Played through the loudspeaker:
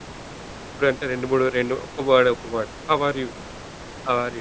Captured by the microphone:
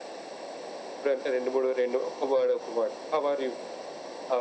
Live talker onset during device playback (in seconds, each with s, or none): none